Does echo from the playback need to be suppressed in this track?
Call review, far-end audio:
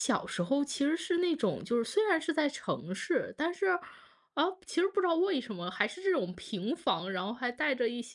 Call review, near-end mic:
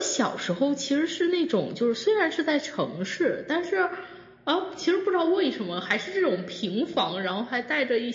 Yes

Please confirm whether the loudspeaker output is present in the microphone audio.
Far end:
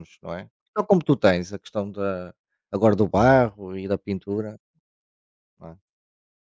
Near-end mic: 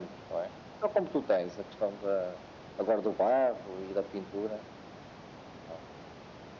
Yes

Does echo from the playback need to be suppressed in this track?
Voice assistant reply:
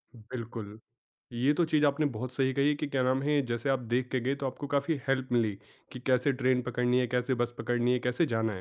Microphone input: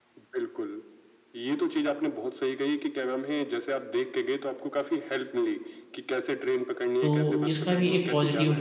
Yes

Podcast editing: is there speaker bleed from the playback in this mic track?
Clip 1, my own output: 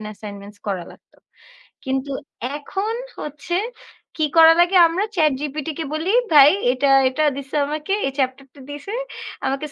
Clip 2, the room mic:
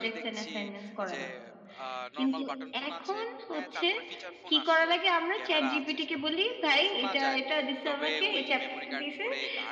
Yes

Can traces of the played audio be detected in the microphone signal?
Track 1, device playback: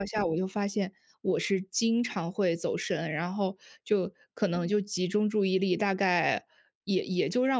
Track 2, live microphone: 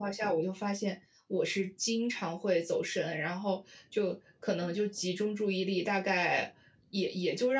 Yes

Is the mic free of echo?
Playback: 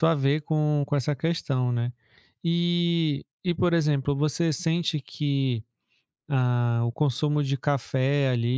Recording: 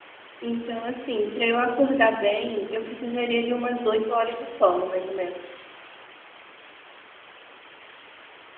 Yes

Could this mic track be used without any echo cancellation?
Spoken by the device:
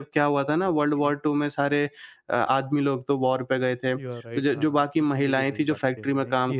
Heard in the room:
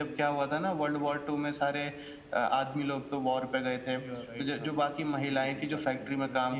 No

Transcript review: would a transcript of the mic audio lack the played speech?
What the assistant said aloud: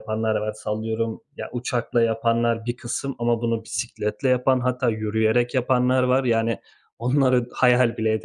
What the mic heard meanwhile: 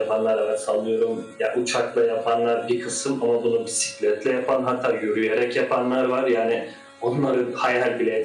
No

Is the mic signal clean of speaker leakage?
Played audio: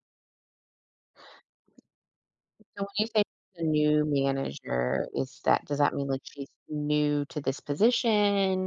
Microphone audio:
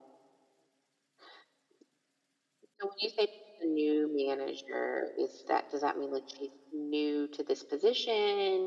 No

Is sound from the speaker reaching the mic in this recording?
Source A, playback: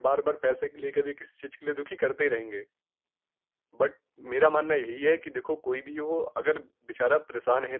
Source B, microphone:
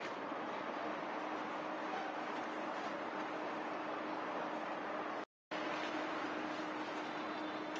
No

